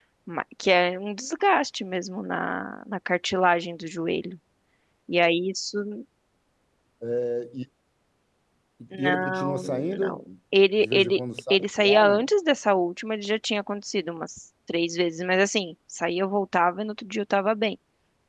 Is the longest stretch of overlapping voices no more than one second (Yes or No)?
No